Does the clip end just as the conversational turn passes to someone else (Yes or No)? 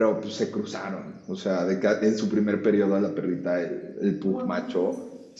No